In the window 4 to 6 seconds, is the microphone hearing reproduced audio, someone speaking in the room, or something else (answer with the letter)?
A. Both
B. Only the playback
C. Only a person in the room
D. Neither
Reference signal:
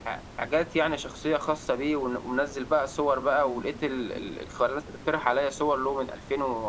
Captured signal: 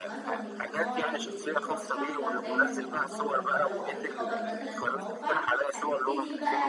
A